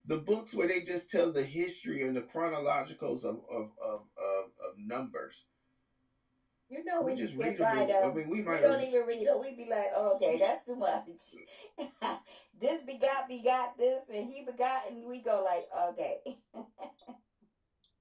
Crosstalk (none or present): present